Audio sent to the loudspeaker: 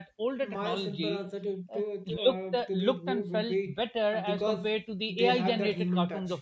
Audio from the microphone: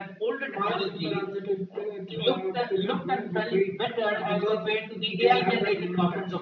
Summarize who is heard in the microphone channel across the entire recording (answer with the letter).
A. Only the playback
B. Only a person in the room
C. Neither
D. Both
A